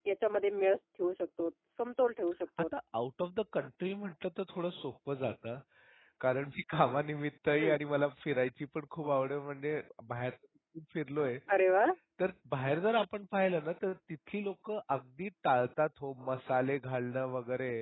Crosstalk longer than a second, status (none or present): none